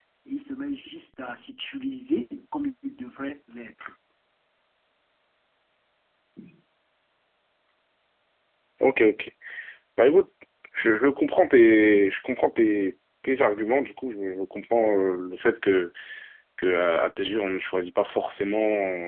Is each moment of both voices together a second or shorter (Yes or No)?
Yes